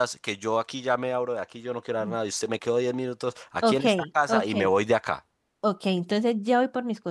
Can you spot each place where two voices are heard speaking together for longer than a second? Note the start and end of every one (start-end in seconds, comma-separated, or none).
none